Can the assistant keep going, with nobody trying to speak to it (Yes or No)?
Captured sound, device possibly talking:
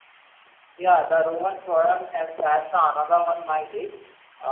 No